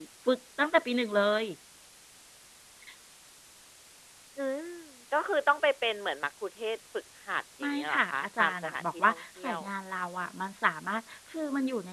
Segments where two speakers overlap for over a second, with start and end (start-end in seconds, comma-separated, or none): 7.6-9.6